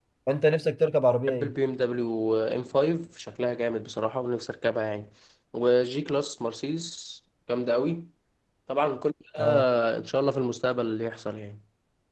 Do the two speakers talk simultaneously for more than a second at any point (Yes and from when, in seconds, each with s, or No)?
No